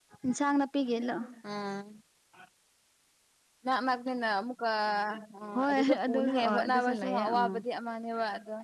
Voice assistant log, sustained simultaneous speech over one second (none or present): present